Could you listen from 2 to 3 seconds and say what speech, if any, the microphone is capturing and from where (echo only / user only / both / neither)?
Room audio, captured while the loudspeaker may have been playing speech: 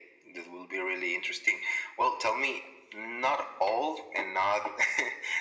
echo only